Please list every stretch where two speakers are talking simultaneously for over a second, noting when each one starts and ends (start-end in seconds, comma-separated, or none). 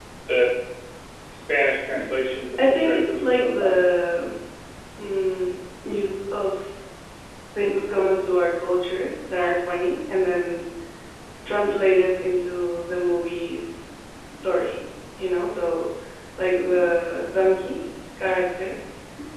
2.6-3.8